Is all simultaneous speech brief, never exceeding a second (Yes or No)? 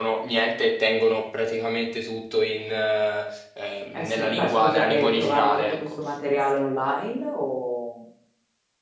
No